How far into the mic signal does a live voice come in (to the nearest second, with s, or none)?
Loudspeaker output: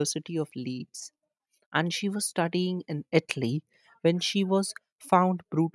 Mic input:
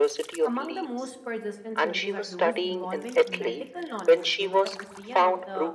0 s